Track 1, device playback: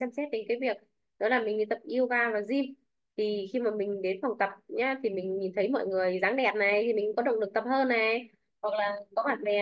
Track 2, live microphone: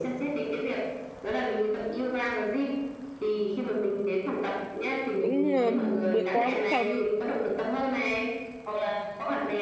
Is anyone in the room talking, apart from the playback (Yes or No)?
Yes